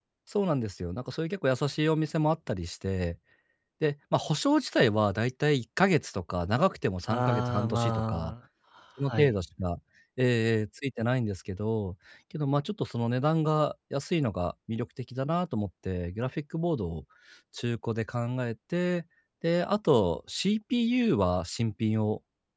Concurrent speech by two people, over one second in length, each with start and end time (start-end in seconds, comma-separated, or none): 7.1-8.3